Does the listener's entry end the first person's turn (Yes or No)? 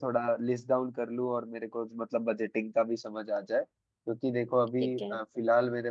No